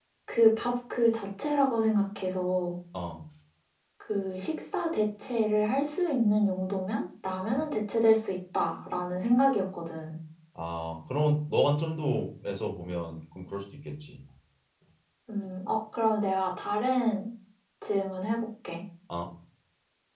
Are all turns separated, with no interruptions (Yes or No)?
Yes